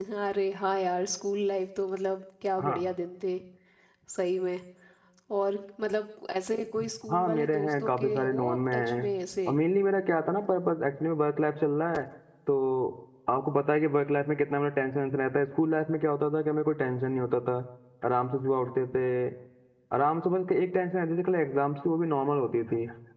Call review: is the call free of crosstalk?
No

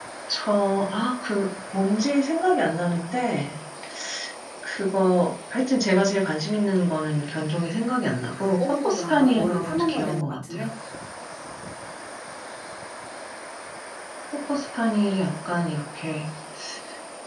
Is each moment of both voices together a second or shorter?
No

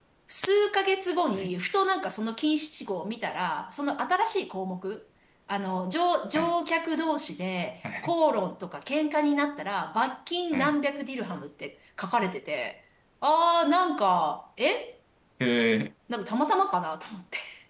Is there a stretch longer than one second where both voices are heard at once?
No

